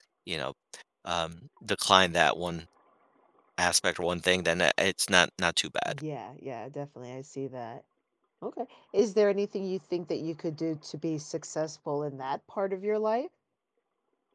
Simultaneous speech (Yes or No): No